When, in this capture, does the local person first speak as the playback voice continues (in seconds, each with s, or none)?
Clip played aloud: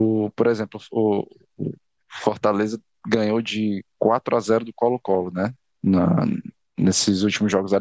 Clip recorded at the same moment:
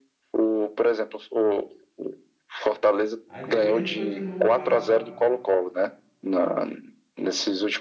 3.3 s